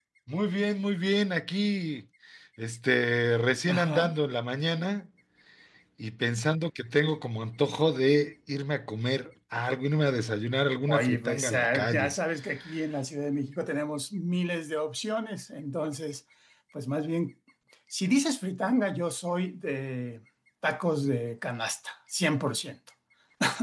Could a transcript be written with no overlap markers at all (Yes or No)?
No